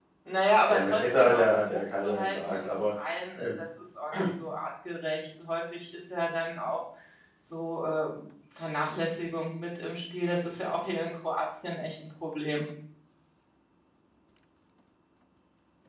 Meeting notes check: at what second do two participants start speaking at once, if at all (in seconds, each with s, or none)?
0.7 s